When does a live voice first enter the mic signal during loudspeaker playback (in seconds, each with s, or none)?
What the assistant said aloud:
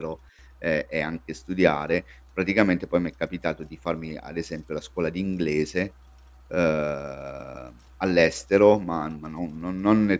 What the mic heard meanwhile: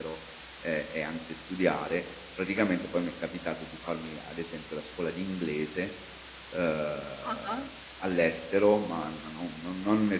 7.2 s